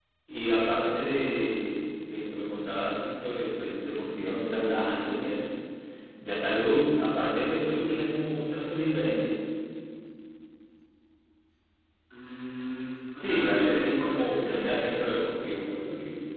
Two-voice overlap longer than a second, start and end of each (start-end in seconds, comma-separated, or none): 13.1-14.7